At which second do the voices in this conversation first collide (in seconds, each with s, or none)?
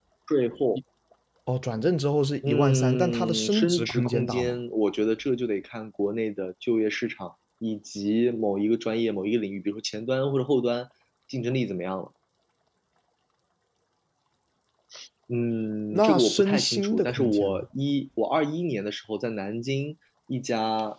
2.5 s